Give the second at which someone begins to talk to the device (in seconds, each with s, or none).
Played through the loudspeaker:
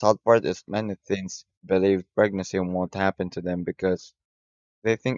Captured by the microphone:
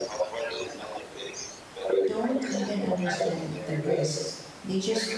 2.0 s